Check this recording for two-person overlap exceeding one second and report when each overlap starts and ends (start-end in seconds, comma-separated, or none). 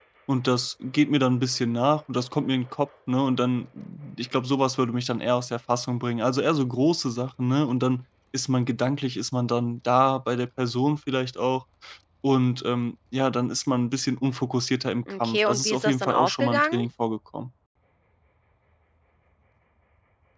15.2-16.8